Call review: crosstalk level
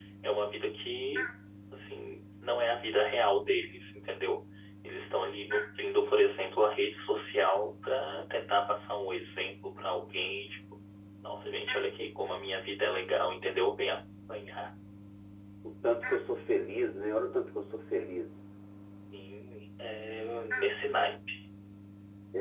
none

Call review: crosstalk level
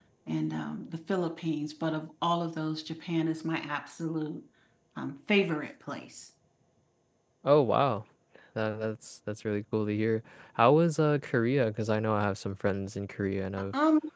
none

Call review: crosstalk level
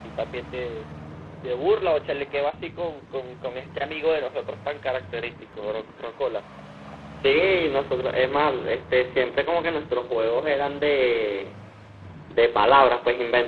none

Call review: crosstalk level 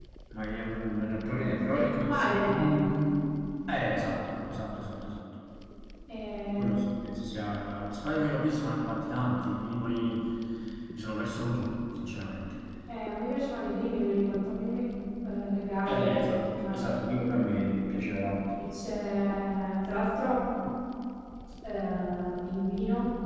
present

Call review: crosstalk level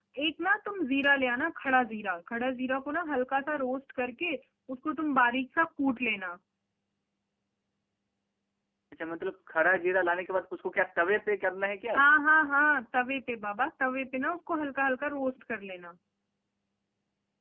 none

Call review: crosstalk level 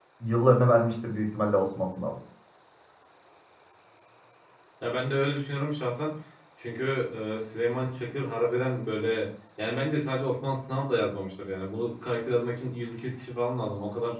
none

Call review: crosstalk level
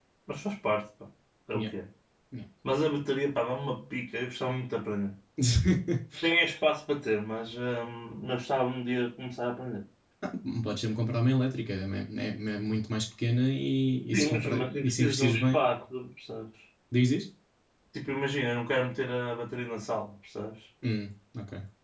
present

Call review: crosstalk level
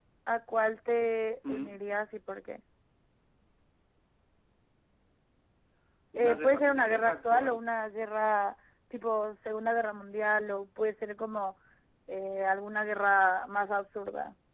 present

